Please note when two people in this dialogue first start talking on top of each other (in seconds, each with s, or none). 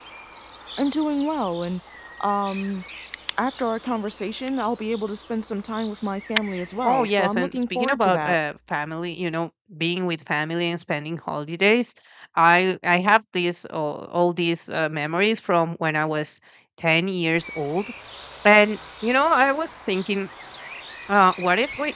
6.8 s